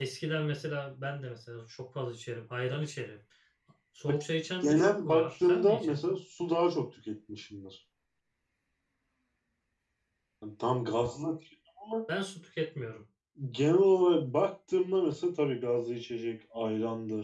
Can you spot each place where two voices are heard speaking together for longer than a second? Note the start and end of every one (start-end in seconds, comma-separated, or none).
4.6-6.0